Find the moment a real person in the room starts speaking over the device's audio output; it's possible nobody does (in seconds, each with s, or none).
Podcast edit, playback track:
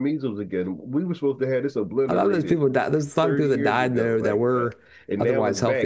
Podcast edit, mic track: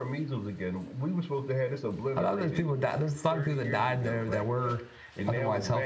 none